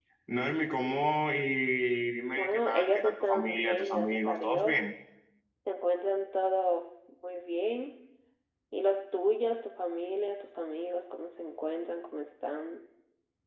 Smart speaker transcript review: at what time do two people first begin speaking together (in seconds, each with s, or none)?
2.4 s